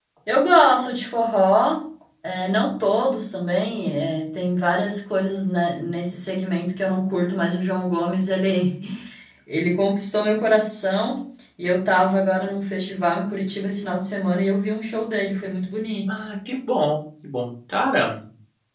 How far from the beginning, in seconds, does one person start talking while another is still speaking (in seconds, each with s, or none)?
none